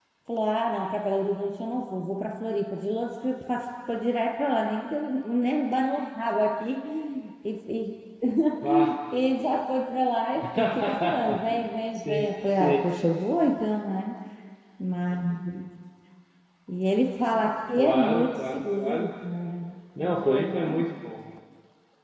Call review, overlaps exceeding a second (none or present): present